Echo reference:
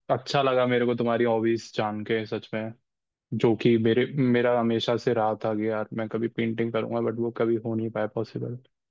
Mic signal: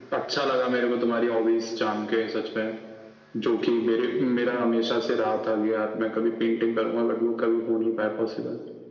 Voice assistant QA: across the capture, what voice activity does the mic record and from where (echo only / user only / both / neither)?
echo only